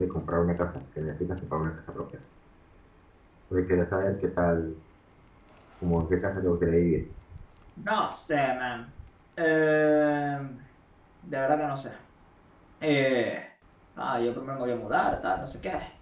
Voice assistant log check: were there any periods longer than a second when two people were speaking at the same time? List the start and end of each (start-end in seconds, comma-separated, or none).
none